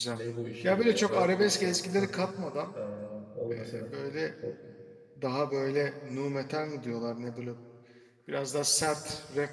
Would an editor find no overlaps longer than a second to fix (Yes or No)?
No